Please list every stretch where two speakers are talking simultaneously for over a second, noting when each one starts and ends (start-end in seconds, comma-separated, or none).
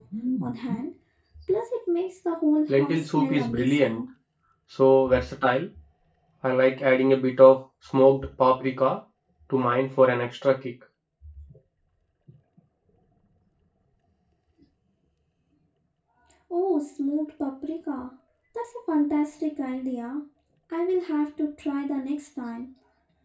2.7-4.0